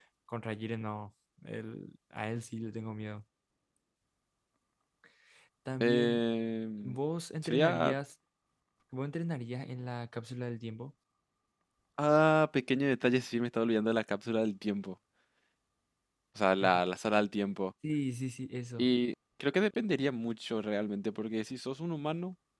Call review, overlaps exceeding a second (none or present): none